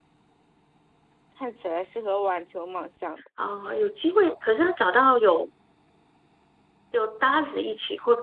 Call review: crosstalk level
none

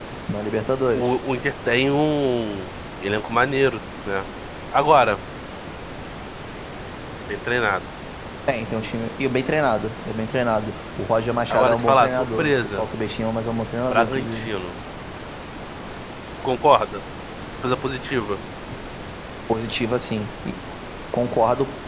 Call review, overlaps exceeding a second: present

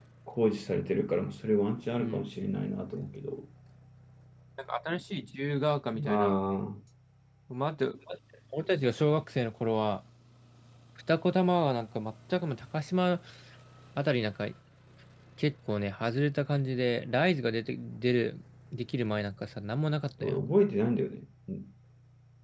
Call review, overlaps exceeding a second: none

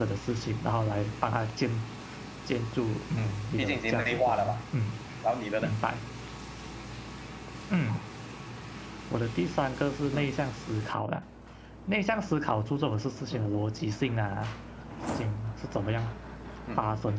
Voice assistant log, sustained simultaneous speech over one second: present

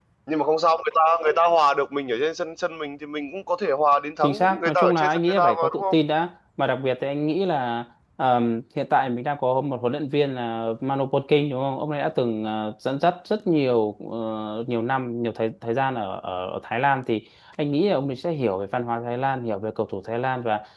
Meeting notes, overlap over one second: present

